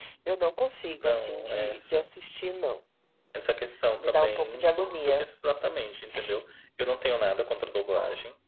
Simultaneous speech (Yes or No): Yes